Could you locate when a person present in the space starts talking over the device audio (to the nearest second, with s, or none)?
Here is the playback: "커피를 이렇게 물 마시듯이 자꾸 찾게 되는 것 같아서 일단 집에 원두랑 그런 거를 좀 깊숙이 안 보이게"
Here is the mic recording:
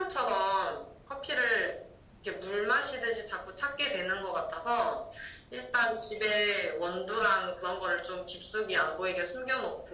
none